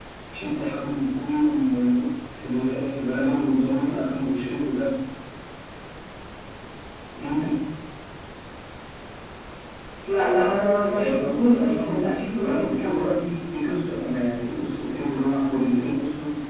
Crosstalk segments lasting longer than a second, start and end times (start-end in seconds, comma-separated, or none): 10.9-13.0